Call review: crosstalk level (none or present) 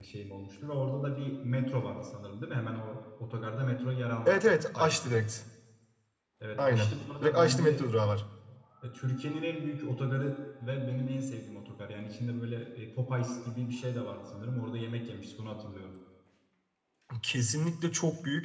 present